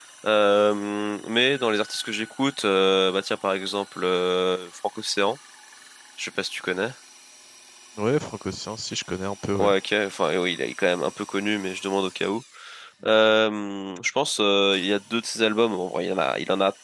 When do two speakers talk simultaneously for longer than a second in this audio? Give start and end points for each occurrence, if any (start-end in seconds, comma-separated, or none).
none